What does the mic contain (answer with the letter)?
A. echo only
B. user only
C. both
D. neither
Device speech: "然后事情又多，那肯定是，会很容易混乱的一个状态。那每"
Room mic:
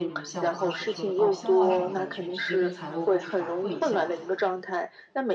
C